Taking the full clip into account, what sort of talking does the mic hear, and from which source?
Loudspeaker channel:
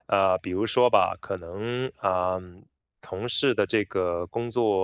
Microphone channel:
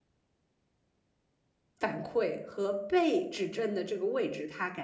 user only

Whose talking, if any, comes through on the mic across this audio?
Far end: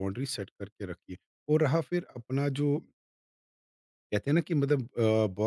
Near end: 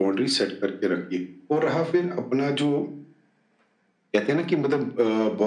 echo only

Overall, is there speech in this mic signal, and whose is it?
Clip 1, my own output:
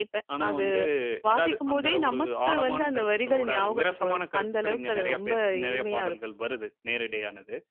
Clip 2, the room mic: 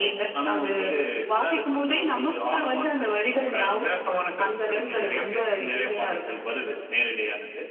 echo only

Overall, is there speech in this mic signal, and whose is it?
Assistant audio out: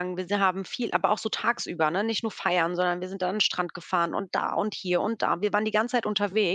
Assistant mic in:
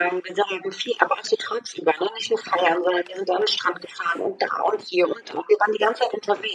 echo only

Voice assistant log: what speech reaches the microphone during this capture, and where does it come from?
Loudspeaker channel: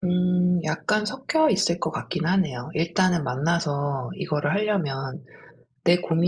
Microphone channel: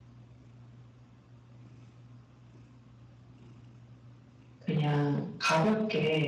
user only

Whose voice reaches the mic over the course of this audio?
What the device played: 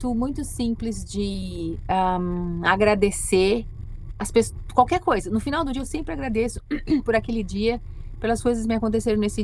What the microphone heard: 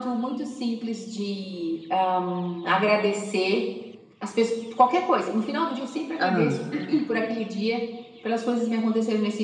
both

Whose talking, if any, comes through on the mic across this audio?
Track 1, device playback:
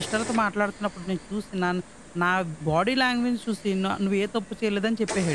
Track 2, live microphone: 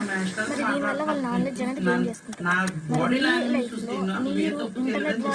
both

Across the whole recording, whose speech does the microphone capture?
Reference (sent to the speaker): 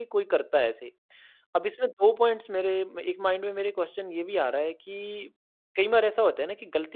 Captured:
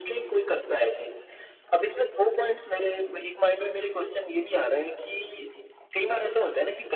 echo only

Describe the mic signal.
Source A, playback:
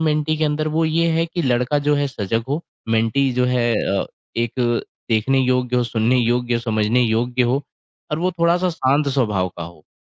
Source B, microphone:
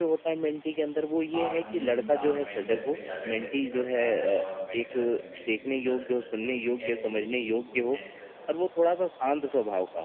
both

